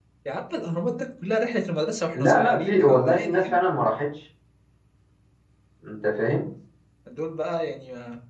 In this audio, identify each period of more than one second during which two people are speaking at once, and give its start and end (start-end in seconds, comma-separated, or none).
2.1-3.6